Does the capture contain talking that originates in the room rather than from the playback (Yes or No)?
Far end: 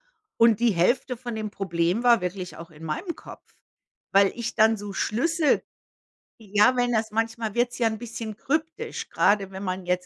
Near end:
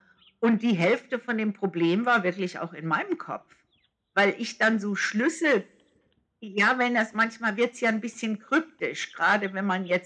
No